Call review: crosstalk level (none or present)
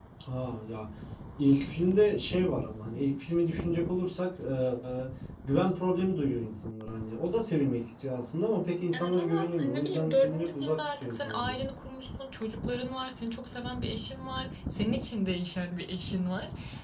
present